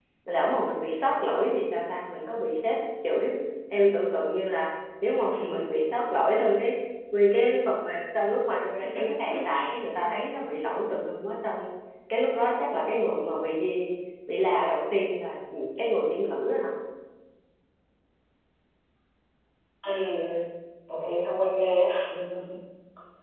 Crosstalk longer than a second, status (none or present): none